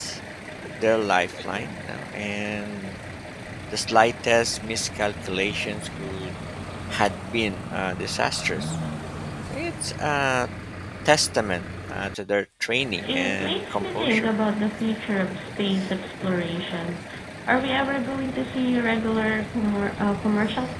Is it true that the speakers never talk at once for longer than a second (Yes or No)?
No